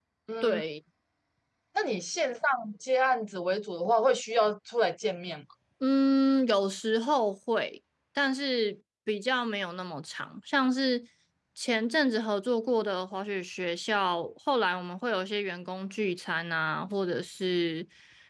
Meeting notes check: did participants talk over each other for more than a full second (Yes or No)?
No